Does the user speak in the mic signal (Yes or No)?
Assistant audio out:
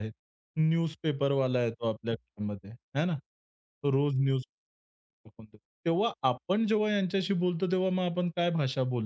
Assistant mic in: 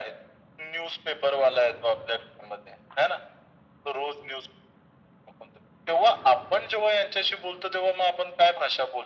No